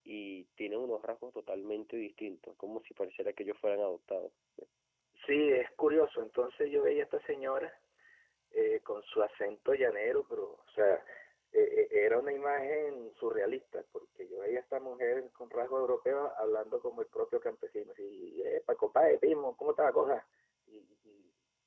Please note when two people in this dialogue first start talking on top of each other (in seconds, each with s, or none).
none